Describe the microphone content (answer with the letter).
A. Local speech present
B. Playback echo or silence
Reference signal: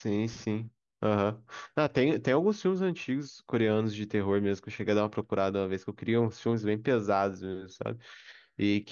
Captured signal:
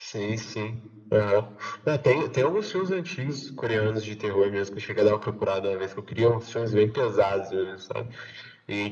B